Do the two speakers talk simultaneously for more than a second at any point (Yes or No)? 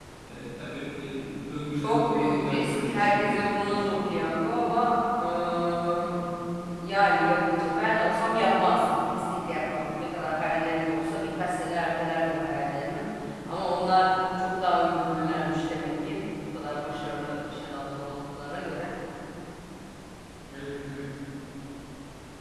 Yes